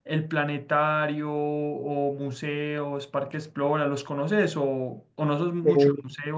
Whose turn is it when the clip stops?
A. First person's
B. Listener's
A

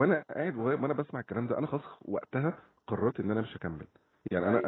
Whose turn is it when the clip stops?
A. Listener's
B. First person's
B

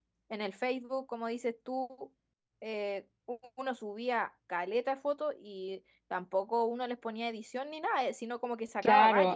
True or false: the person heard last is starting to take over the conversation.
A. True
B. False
A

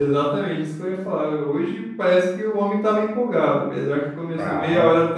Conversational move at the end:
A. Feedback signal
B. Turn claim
A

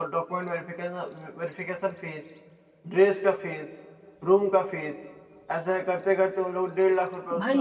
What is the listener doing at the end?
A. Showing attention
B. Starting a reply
B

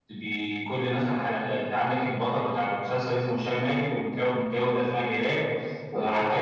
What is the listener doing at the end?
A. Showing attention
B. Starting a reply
A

